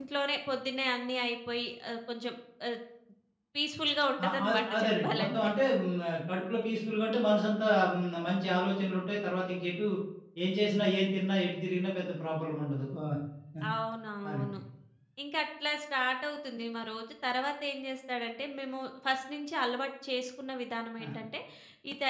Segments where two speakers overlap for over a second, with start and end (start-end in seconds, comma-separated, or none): 4.2-5.5